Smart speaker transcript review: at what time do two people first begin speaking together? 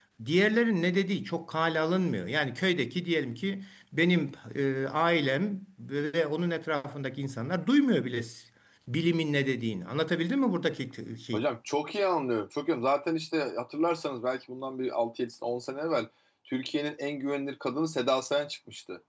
none

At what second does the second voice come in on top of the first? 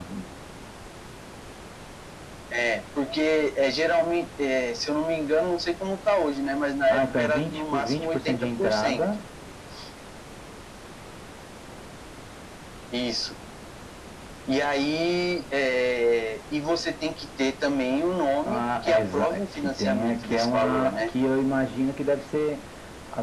6.9 s

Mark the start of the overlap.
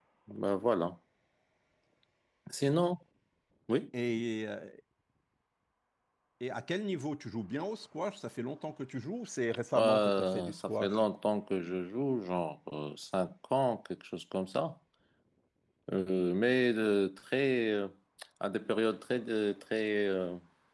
9.8 s

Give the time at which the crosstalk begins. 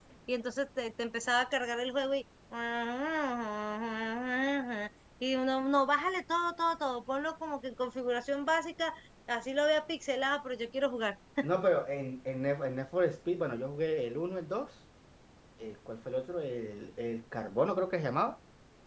none

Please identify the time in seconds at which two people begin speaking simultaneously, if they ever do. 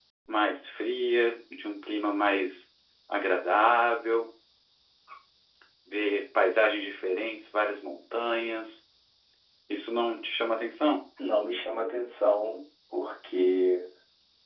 none

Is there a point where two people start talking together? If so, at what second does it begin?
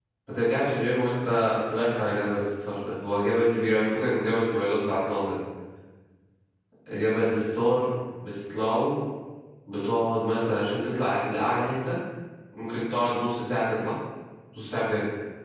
none

